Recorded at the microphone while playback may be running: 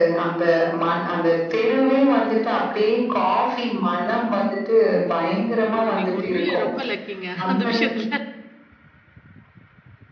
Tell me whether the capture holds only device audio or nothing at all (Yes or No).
No